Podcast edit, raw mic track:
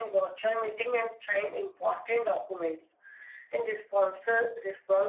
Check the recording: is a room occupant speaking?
No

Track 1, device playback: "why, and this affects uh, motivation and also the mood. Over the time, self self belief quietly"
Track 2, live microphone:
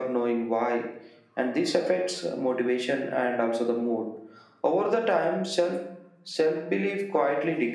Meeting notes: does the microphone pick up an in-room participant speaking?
No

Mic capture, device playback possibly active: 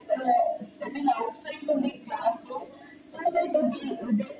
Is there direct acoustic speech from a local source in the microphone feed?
No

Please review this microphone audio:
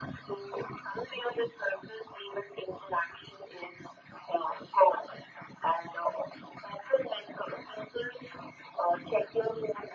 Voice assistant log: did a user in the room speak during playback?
No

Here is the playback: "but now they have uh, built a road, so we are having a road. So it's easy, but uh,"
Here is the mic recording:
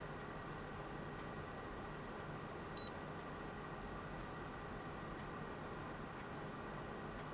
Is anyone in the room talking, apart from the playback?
No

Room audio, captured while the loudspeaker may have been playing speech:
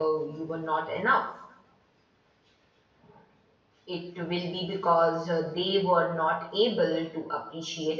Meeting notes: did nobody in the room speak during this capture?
No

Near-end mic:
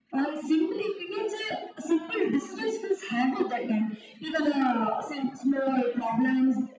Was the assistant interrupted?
No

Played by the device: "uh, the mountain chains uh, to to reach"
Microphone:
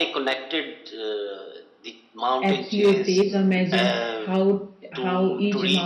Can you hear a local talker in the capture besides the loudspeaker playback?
Yes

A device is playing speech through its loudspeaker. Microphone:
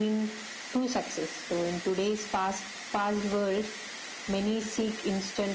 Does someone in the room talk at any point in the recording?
No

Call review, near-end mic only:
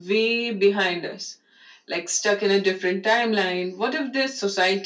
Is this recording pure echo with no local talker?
Yes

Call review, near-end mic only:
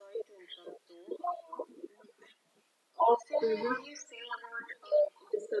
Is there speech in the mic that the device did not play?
Yes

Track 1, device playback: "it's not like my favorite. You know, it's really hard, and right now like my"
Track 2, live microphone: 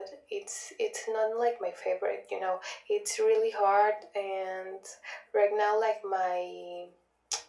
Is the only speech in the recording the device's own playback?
Yes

